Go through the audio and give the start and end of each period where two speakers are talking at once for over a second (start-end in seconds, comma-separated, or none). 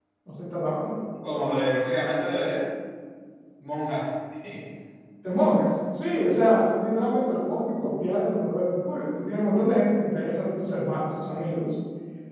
none